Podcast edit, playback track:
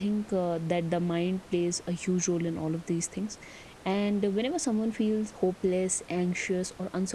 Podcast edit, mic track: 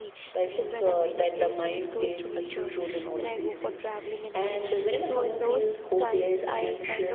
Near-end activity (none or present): present